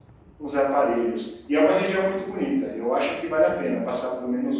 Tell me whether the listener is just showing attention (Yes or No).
Yes